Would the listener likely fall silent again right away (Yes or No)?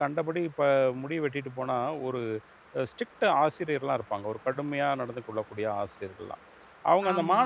Yes